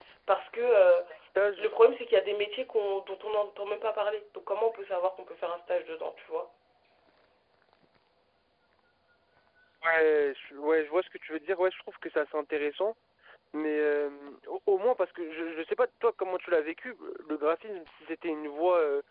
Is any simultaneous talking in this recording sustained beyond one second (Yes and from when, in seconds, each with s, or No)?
No